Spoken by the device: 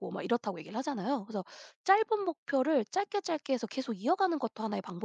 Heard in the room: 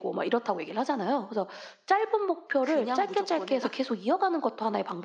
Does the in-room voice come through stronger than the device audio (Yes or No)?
No